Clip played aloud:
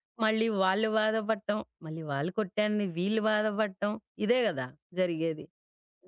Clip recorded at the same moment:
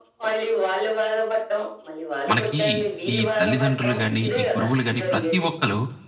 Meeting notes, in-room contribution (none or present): present